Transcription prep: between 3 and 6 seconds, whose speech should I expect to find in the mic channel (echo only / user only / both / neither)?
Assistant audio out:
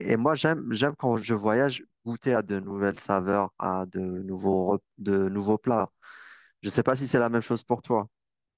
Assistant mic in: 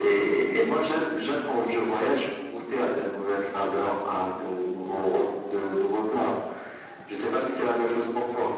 echo only